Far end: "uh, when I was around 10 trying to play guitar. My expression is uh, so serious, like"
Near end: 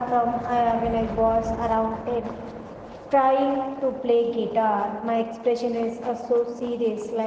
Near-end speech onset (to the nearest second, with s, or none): none